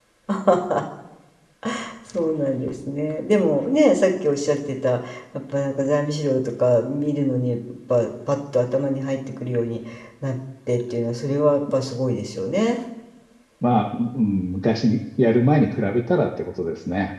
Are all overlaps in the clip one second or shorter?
Yes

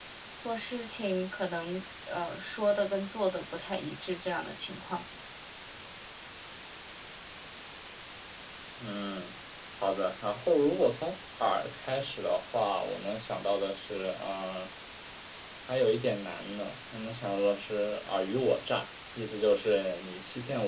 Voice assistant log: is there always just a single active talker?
Yes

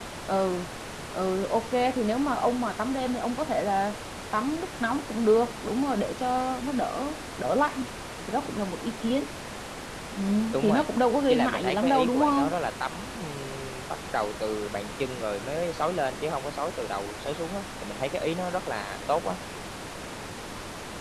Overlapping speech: Yes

